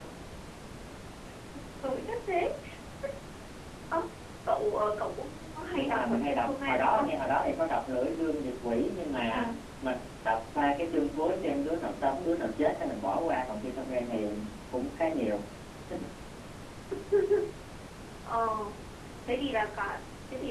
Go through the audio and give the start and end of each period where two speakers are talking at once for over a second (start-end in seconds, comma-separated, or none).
5.8-7.1